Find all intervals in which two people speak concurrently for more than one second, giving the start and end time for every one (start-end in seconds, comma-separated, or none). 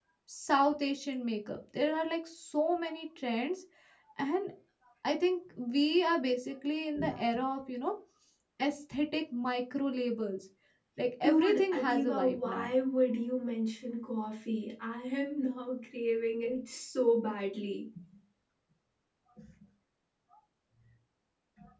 11.2-12.7